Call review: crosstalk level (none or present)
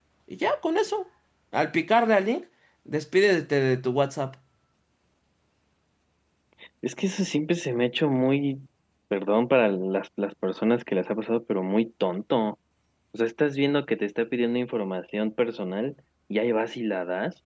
none